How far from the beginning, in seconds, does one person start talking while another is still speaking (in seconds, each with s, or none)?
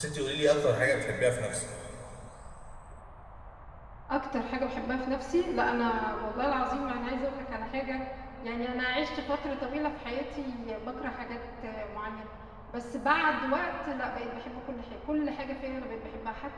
none